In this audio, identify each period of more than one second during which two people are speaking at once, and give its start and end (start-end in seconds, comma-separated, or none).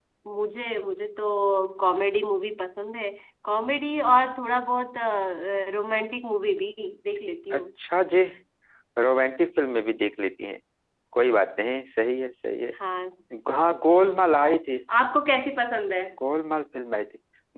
none